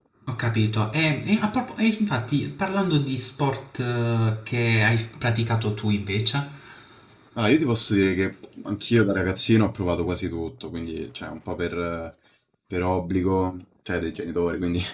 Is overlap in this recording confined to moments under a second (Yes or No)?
Yes